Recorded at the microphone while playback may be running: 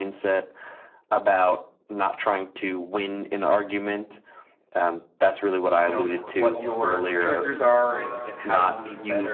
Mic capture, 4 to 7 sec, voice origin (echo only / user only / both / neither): both